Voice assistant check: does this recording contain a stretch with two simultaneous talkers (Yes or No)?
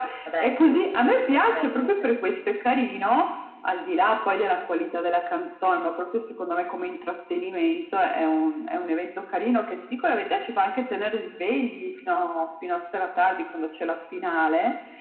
Yes